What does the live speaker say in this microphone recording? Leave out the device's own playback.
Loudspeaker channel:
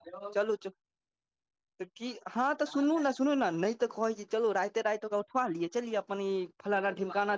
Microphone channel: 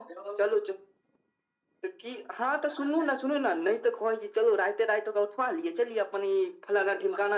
none

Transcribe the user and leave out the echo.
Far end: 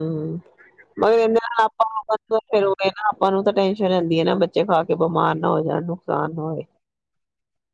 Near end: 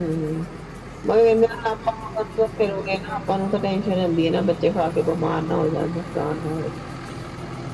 none

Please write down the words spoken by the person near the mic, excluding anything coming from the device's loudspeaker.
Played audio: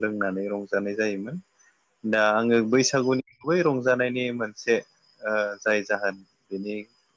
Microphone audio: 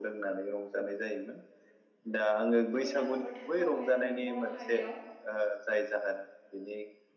बैसागु बोथोरखौहाय जोंनि बर' हारियाव

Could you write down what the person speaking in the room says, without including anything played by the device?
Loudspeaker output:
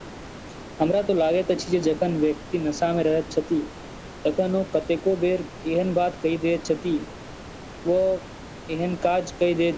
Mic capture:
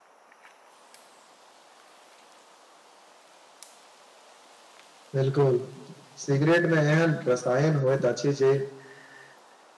बिल्कुल सिगरेट मे एहन रसायन होइत अछि जे

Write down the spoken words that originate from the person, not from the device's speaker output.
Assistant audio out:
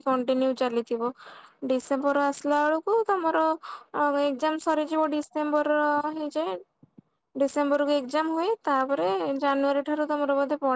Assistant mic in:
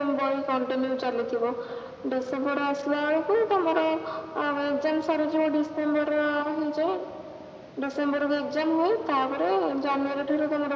none

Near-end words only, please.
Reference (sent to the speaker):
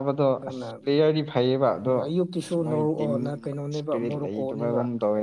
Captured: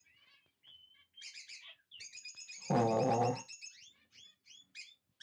ꯑꯣ ꯑꯣ

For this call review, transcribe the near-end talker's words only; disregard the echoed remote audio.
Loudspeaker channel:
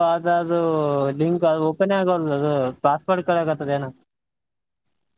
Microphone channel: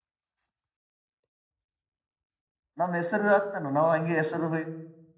ನಮ್ ಹೆಸರು ಆಗ್ತಾನು ನಾವ್ ಹಂಗೆ ಹೆಸರು

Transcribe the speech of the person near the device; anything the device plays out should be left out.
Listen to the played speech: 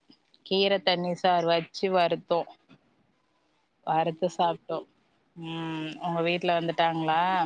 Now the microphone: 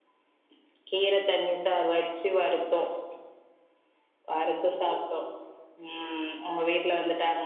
none

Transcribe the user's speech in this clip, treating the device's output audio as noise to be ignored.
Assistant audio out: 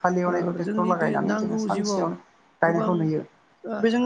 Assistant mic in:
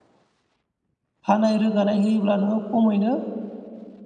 हानाय रोगानाय होयोब्ला नोङो खमैनो

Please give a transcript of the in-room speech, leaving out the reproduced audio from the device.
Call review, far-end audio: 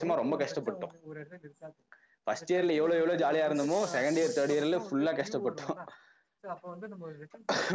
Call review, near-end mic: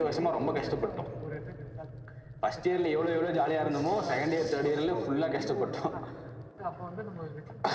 none

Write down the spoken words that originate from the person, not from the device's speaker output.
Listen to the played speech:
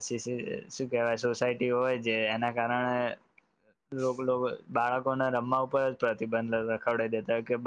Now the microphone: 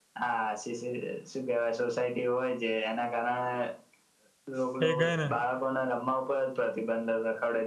ભેગારા

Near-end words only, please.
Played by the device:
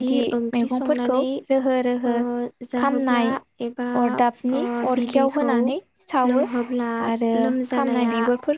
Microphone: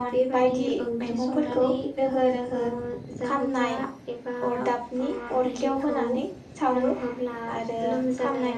none

